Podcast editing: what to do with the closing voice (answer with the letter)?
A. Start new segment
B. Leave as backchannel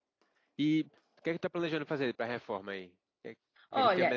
A